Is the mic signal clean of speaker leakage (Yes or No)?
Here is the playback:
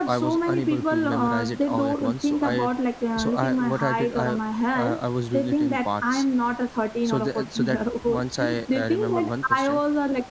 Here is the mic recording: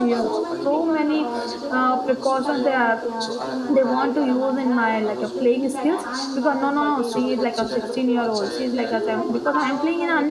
No